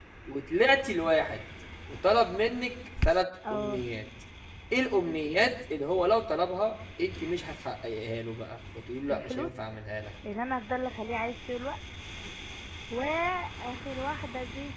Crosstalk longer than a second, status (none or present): none